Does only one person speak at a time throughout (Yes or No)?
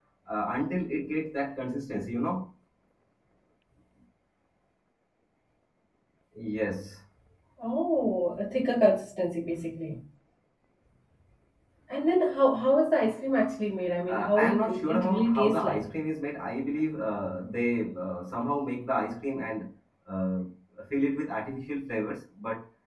No